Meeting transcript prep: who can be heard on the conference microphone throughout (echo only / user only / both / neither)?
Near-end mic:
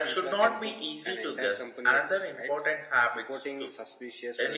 echo only